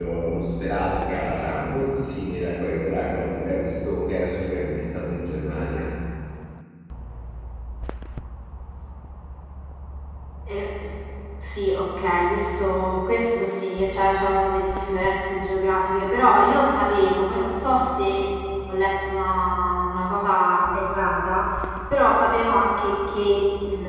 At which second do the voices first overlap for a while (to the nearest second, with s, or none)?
none